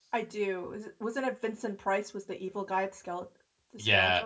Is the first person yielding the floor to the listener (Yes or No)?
Yes